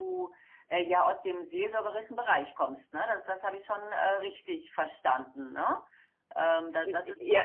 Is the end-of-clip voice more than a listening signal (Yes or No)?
Yes